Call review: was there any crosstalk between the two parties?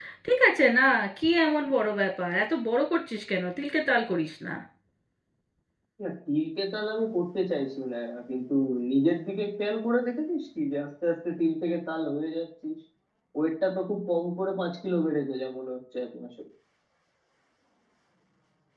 No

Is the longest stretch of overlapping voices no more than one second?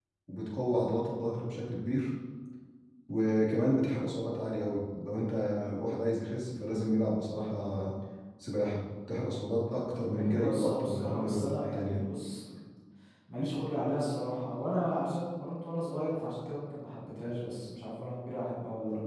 No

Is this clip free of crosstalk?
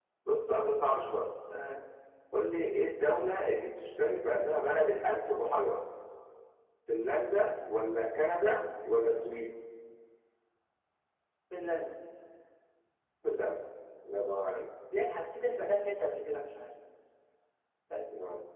Yes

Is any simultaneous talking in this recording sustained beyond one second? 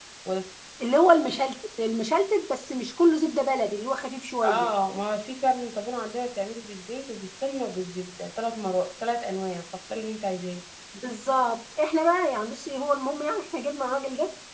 No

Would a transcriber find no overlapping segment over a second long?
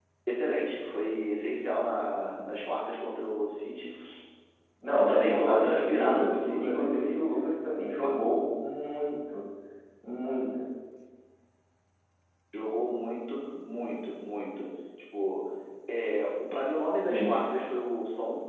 No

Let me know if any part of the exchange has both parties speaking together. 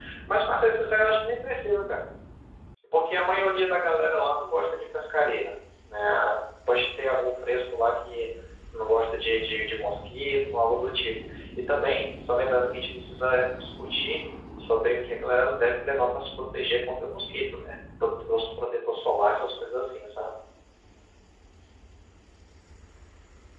No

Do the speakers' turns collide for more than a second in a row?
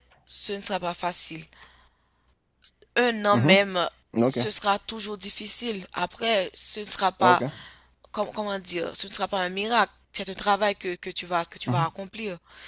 No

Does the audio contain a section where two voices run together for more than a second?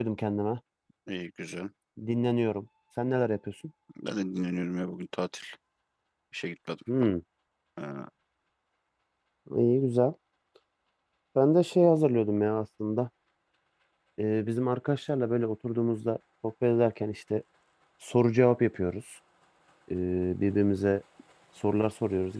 No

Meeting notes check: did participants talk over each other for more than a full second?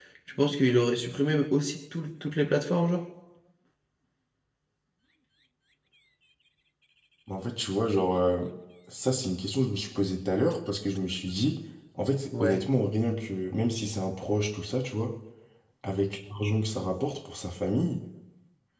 No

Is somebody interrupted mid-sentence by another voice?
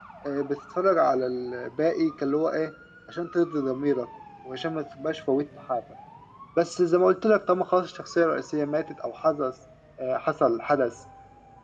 No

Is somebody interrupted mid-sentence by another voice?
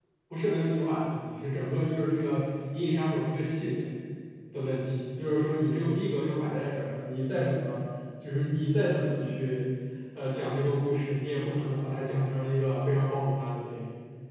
No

